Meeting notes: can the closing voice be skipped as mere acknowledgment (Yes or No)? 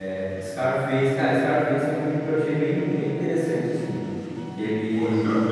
No